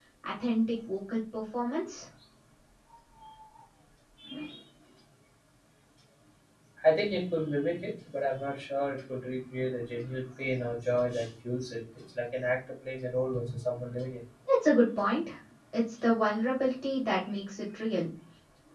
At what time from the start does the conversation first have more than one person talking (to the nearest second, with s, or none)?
none